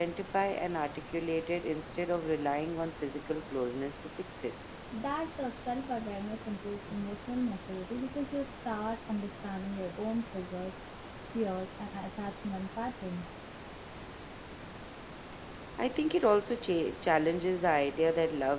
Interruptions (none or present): none